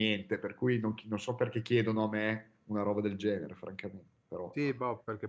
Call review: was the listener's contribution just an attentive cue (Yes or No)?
No